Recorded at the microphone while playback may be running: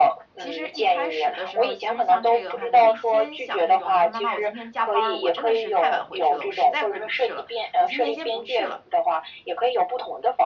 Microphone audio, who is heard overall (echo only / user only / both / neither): both